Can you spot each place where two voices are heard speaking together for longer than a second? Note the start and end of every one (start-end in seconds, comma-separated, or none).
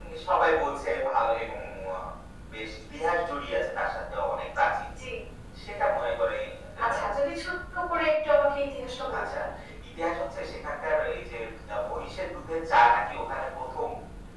none